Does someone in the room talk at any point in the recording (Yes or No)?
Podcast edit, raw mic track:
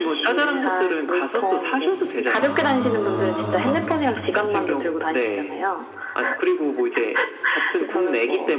Yes